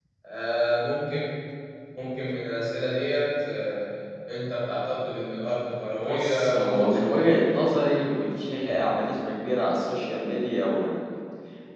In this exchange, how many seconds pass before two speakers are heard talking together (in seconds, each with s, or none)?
6.0 s